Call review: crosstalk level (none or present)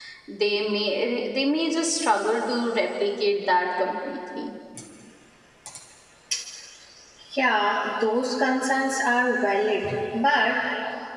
none